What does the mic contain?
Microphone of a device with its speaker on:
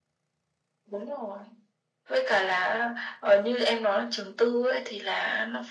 echo only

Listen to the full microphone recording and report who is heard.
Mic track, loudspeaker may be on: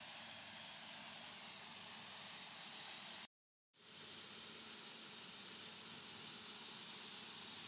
neither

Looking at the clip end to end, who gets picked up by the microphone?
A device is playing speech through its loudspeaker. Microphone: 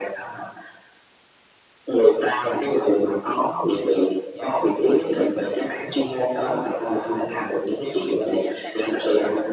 both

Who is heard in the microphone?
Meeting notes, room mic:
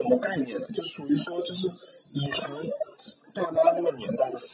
echo only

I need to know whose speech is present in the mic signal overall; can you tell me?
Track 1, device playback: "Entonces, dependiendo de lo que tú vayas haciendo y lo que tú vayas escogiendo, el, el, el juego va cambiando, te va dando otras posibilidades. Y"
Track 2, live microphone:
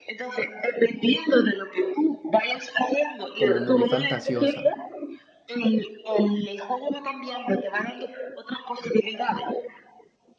both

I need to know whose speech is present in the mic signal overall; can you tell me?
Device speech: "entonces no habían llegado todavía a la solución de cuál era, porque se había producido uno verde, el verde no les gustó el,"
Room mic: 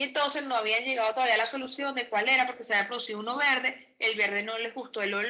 echo only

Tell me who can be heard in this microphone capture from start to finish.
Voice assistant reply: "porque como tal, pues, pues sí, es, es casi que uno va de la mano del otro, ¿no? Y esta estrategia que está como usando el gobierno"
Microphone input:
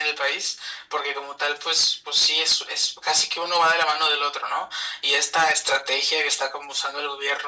echo only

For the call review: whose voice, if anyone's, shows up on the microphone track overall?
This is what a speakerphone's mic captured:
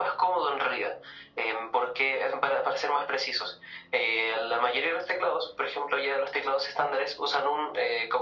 echo only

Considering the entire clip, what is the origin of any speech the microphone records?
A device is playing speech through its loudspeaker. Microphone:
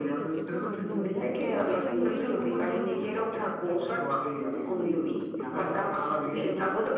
both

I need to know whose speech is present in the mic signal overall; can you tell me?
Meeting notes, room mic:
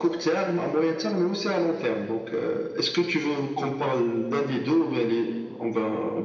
echo only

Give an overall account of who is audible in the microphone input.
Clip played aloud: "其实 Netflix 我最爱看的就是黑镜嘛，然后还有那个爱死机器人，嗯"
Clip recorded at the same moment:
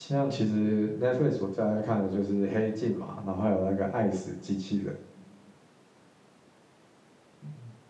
echo only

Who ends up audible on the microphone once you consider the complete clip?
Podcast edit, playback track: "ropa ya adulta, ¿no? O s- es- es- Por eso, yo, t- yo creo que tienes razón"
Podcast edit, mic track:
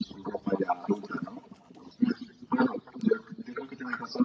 echo only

